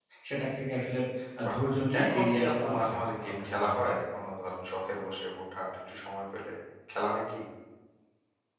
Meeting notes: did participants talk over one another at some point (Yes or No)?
Yes